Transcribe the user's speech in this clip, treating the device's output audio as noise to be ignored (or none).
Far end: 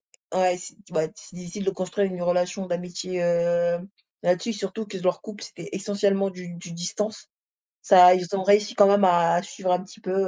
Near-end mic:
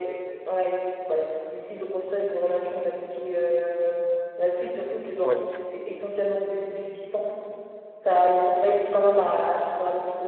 ouais, parce que